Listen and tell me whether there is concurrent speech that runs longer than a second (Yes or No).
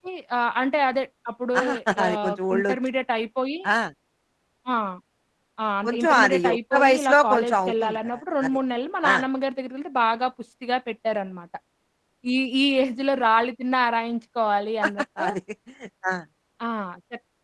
Yes